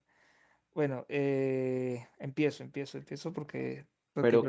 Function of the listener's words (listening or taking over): taking over